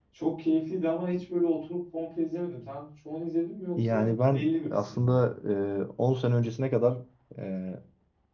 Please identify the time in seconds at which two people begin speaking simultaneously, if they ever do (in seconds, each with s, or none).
3.8 s